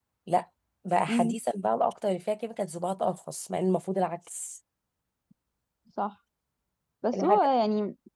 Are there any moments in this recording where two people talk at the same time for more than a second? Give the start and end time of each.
none

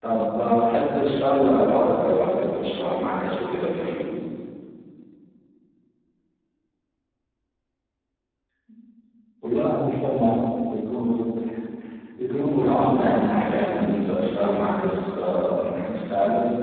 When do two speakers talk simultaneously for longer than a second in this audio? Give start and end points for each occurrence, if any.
12.7-14.1

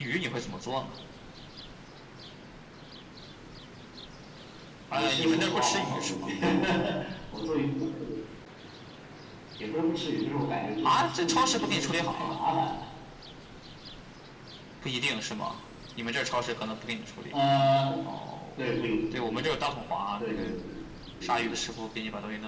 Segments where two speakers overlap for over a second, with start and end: 4.9-6.3, 10.8-12.3

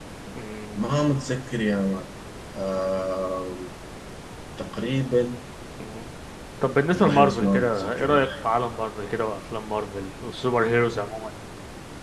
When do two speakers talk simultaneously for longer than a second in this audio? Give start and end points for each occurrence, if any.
6.9-8.3

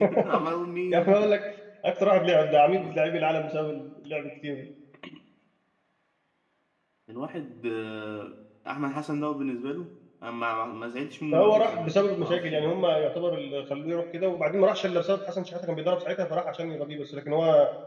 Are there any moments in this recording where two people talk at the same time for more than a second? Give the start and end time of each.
11.3-12.8

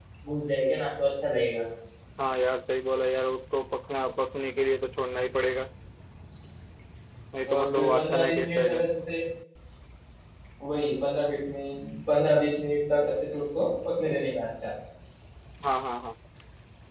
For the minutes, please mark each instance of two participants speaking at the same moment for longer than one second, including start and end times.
7.5-8.8

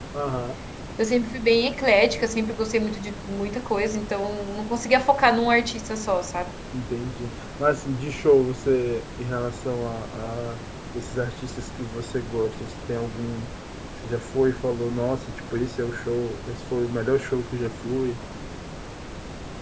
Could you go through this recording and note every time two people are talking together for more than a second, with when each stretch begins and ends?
none

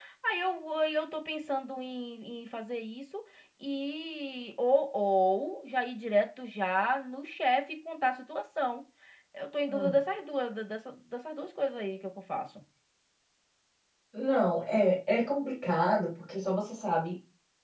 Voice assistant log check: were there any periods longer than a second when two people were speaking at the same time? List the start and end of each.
none

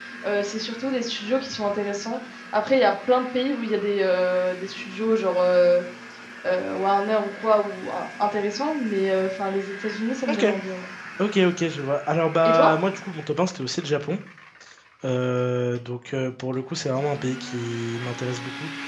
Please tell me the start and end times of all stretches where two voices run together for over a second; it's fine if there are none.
none

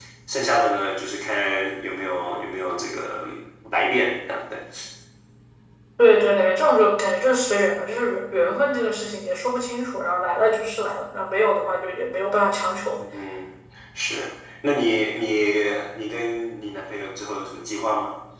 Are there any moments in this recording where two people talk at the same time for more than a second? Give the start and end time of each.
none

